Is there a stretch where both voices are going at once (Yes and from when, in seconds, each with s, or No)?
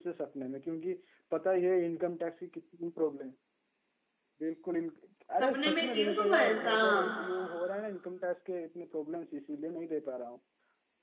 Yes, from 5.4 s